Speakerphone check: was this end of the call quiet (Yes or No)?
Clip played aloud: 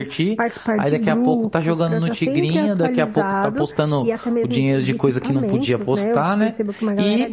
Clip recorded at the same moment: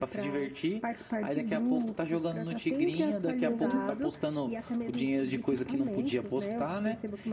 No